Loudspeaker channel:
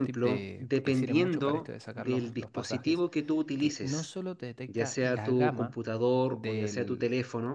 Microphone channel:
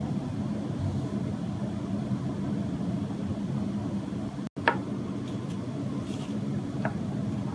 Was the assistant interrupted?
No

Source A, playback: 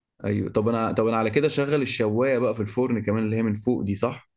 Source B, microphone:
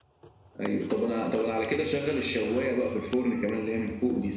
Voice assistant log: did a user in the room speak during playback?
No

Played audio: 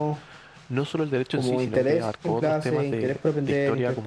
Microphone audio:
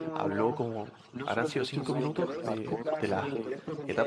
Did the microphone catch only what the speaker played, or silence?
No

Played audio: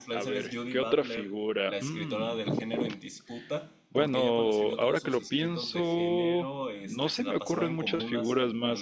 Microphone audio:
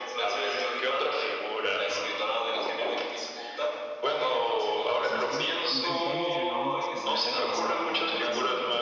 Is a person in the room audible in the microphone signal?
Yes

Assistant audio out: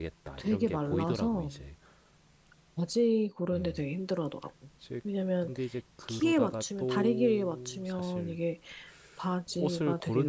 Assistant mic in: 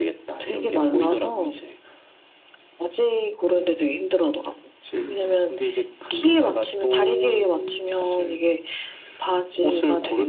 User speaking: Yes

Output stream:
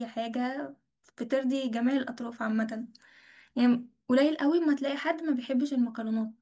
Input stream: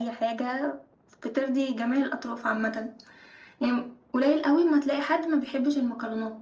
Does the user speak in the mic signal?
No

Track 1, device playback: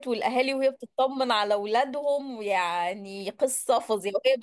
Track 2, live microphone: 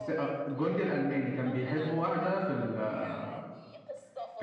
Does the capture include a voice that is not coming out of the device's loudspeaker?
Yes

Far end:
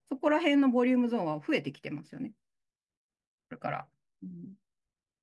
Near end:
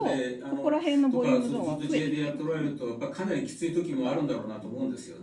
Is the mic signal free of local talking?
No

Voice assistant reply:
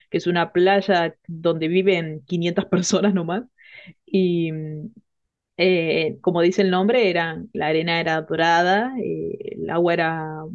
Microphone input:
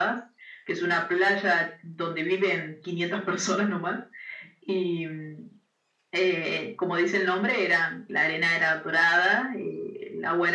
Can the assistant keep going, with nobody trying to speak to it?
Yes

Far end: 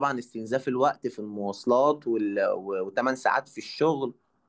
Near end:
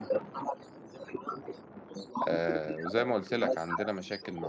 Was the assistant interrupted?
Yes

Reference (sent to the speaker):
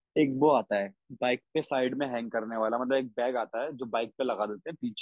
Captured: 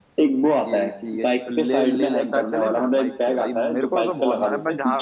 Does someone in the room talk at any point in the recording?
Yes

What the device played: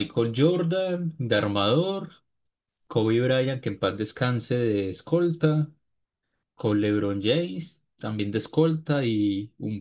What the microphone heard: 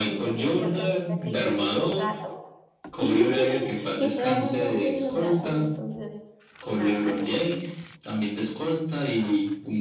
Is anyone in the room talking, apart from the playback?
Yes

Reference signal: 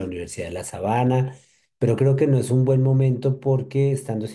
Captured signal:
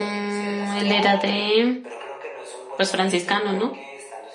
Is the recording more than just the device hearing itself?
Yes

